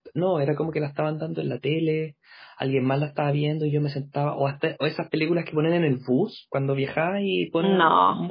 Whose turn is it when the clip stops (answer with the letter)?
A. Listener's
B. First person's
B